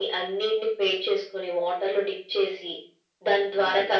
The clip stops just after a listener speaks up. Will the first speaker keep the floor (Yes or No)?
Yes